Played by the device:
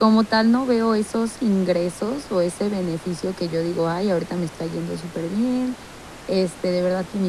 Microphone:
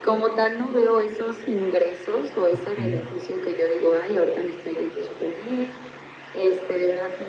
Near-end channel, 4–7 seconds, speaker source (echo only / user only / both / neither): echo only